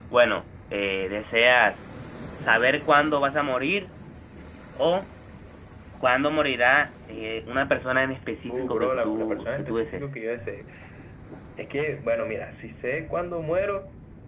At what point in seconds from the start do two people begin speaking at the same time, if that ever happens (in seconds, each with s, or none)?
8.5 s